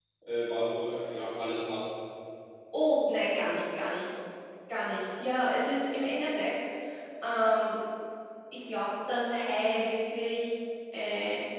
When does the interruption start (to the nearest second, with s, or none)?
none